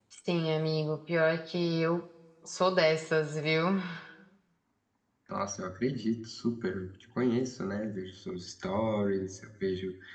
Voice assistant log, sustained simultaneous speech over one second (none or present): none